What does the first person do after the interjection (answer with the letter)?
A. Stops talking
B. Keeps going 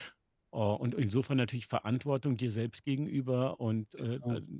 B